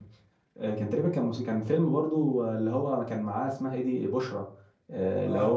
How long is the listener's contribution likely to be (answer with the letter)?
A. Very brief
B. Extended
A